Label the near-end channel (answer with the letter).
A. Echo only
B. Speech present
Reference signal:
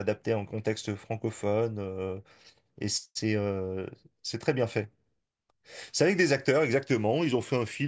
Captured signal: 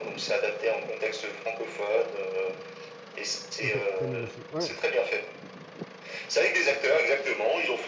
B